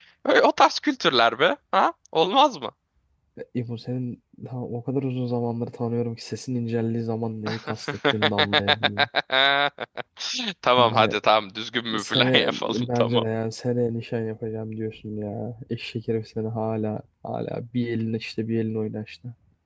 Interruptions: present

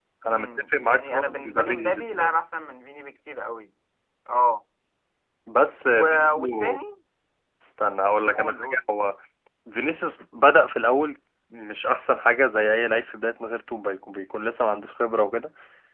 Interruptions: present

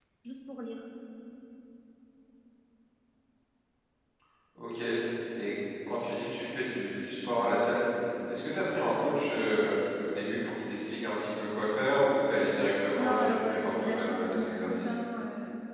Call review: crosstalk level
present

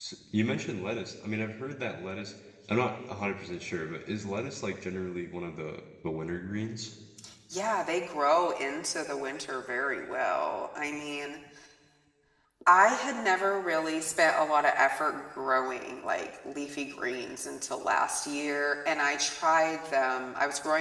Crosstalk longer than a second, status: none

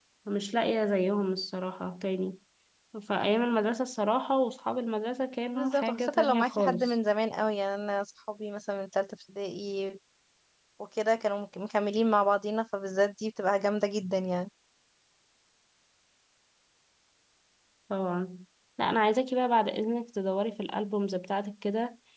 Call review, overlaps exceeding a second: present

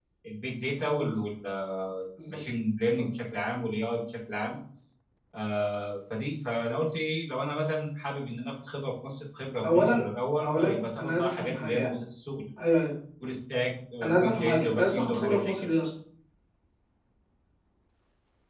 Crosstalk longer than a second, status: present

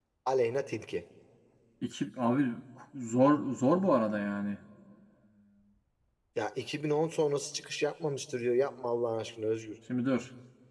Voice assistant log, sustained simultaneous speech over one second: none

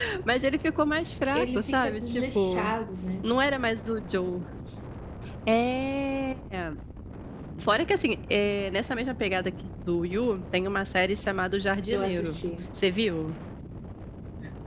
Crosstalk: present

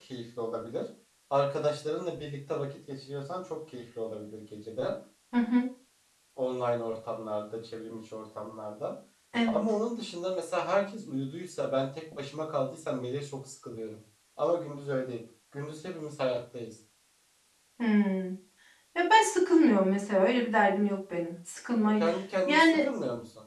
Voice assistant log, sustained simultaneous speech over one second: none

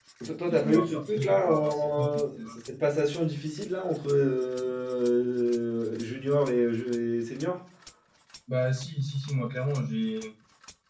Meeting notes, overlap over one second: present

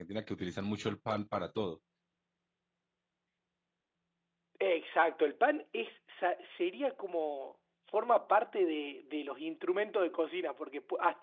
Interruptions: none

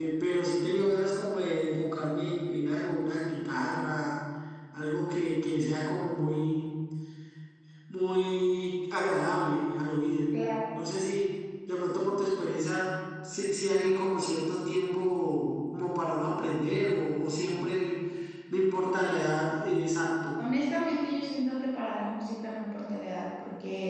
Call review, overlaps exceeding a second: none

